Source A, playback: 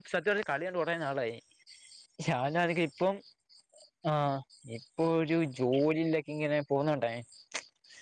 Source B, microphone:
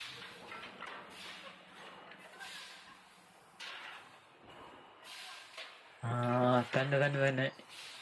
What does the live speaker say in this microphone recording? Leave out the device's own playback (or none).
ആഹ് തന്നെ തന്നെ തന്നെ.